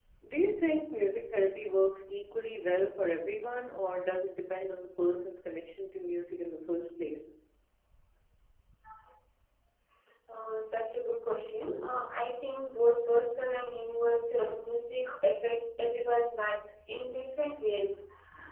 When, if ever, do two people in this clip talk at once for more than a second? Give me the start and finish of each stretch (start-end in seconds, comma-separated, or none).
none